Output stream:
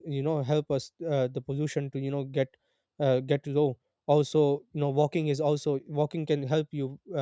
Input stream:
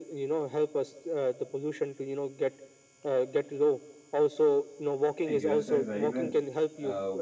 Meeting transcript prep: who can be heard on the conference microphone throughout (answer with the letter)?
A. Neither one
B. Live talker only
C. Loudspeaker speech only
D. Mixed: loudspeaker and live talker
D